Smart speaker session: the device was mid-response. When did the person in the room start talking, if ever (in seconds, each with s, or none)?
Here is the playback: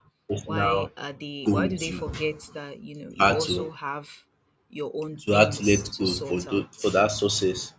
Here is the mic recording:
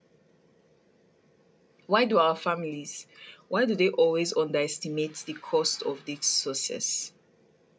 1.8 s